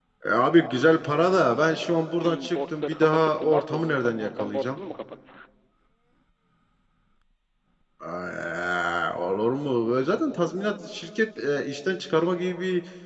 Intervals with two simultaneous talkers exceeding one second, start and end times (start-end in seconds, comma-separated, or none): 2.2-4.8